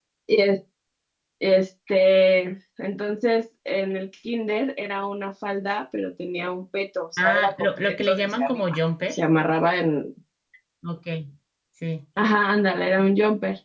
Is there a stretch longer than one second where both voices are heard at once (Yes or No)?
Yes